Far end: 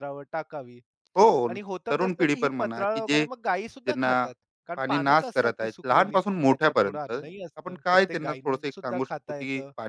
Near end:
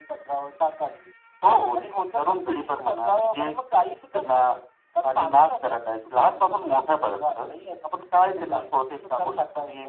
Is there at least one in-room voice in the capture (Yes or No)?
No